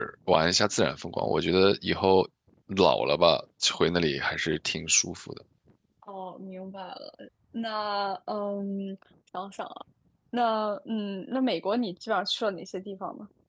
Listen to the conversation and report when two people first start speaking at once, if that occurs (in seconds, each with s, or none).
none